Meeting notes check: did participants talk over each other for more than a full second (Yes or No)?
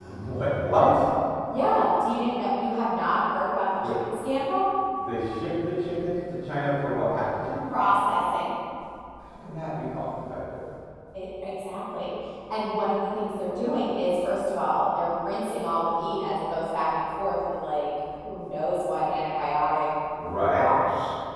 No